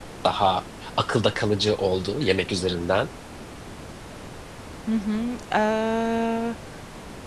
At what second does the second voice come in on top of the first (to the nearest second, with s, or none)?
none